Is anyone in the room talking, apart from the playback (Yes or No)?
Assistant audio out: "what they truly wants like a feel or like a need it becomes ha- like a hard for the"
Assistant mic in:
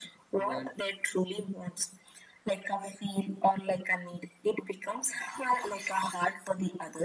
Yes